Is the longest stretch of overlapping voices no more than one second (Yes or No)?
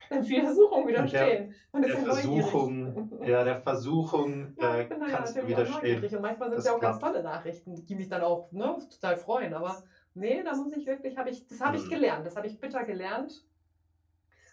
No